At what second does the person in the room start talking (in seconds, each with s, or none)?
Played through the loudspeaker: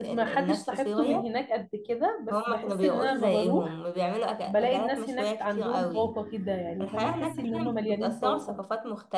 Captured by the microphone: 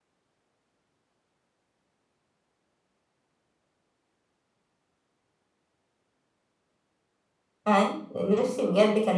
7.7 s